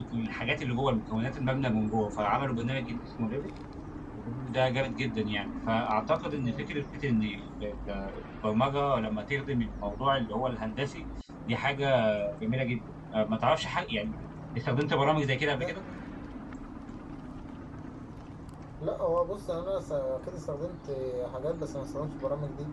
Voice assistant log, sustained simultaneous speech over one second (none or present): none